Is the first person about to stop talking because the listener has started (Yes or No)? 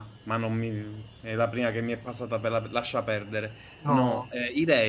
No